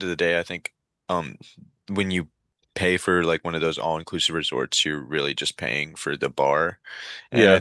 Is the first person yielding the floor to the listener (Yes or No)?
No